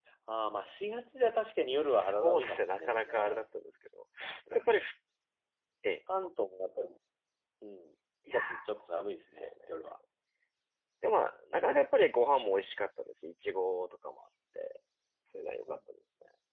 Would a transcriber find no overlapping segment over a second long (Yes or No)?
No